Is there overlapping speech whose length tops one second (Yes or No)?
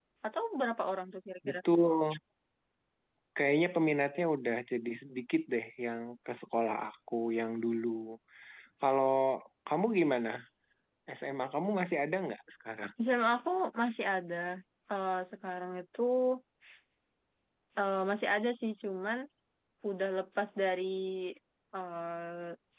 No